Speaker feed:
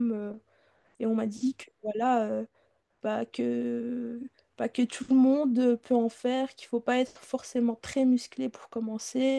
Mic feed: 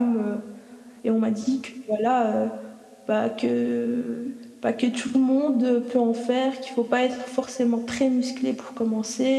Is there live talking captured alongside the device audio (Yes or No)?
No